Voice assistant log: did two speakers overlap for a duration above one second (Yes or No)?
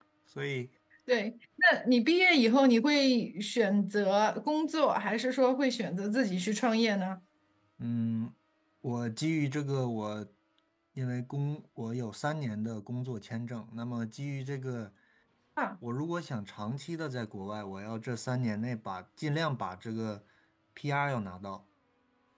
No